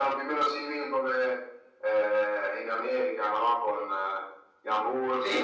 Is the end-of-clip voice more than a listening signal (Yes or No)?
Yes